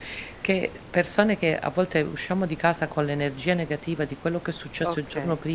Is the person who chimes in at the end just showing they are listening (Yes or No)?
Yes